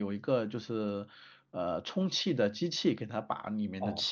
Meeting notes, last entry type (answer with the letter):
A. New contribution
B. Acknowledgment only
A